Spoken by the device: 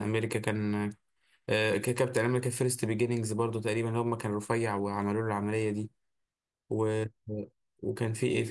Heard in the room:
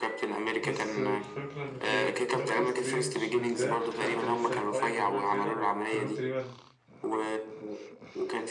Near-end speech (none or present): present